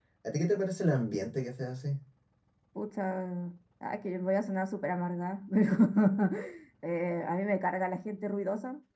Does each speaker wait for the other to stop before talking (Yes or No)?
Yes